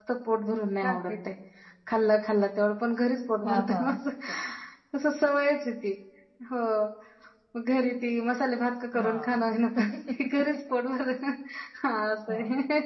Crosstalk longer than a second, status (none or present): none